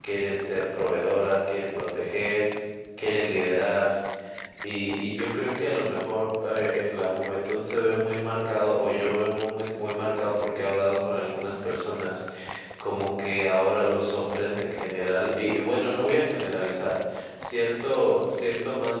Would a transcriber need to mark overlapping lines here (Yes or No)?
No